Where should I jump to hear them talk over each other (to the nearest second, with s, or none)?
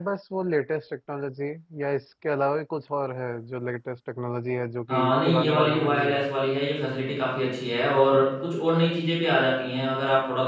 5 s